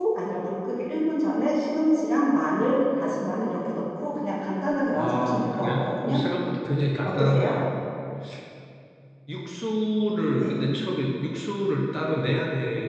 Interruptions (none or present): present